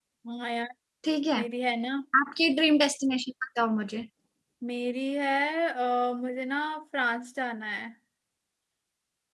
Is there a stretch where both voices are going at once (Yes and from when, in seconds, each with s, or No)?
No